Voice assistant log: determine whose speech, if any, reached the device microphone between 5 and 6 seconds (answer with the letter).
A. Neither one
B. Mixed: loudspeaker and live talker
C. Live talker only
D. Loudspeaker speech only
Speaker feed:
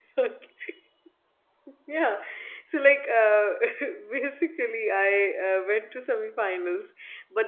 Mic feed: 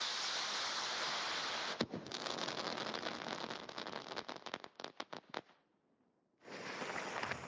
A